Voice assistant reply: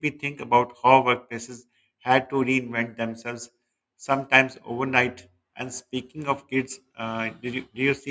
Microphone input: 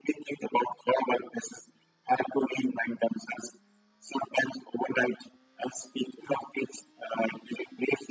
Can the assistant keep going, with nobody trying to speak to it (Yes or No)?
Yes